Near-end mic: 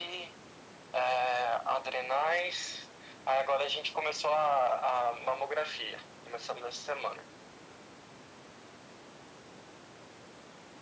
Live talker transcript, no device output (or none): none